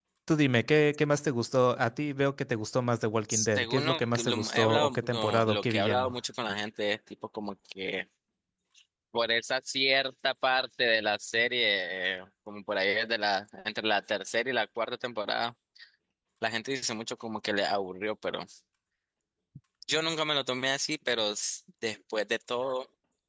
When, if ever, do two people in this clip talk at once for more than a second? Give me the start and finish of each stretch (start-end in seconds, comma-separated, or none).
3.3-6.1